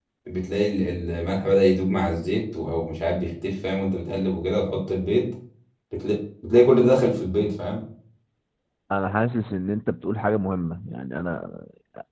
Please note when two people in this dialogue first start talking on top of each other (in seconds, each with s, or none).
none